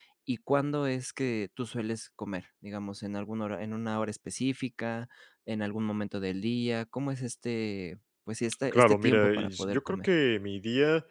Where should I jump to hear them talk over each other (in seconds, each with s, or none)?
8.7 s